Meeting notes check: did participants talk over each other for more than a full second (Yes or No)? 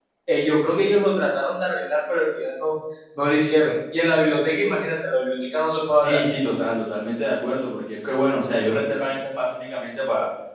No